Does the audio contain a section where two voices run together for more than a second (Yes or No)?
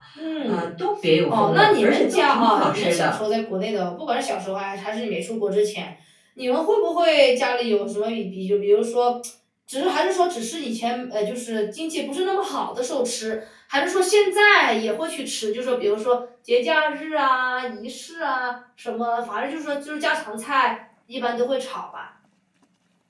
Yes